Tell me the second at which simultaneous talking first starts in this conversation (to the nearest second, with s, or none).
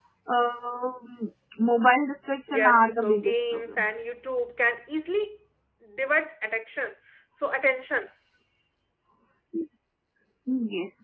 2 s